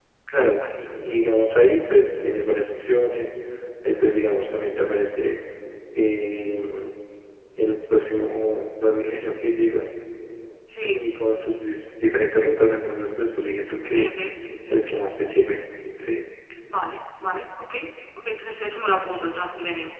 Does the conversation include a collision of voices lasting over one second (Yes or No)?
No